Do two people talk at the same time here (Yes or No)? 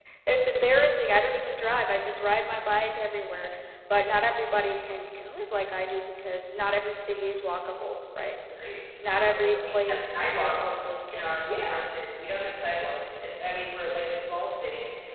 Yes